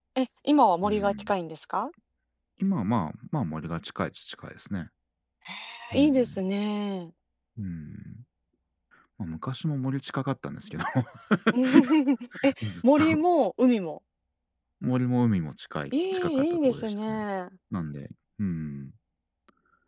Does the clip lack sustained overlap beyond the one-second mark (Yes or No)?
No